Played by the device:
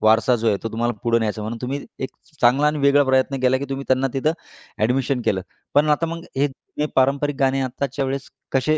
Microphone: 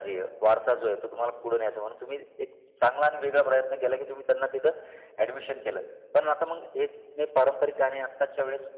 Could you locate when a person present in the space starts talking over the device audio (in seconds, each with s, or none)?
none